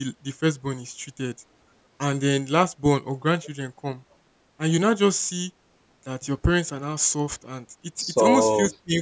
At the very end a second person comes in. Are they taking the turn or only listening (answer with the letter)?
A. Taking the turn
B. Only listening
B